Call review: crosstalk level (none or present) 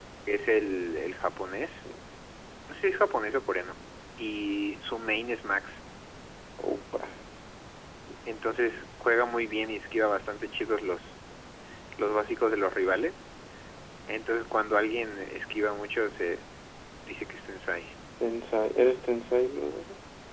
none